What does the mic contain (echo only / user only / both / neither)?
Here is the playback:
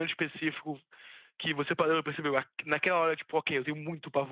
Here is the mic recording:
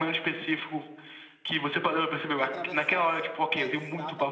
both